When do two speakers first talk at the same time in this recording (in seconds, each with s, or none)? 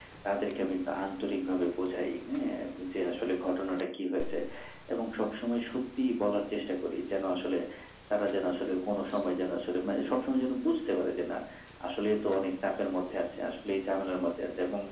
none